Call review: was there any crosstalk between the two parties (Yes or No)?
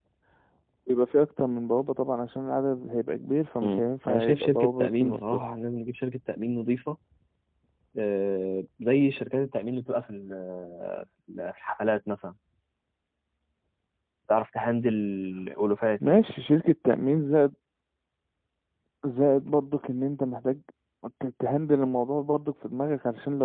Yes